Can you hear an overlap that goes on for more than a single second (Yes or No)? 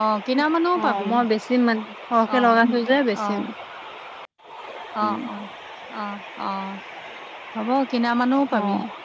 No